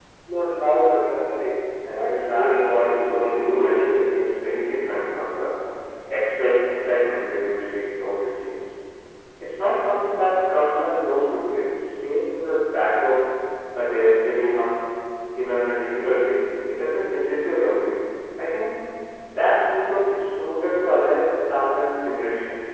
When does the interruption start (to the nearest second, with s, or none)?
2 s